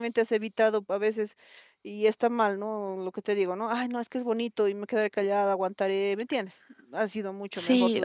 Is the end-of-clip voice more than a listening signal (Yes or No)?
Yes